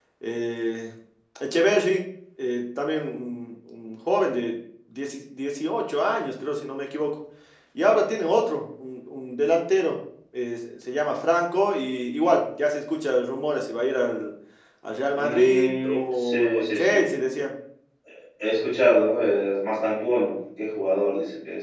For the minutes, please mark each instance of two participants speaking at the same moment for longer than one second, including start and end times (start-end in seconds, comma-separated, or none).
15.2-17.1